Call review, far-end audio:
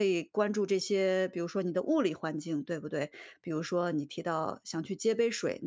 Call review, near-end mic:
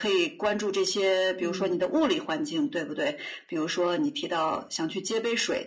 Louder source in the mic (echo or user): echo